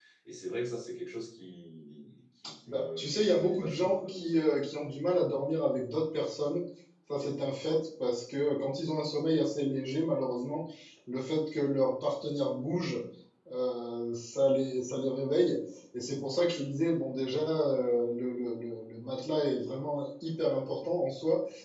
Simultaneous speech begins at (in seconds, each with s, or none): 2.4 s